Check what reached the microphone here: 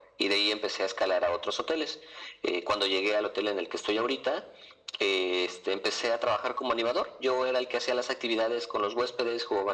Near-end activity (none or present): none